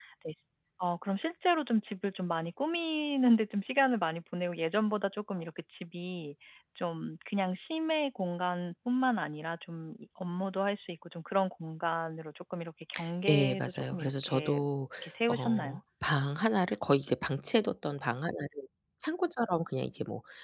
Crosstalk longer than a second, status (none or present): present